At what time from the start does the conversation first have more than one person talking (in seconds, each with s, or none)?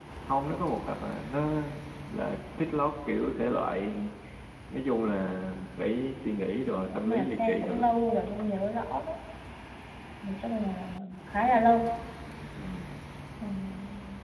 6.7 s